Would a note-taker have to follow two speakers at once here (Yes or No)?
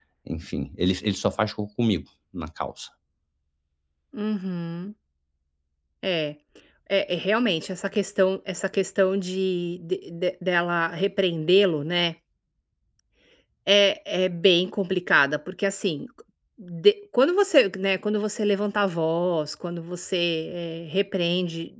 No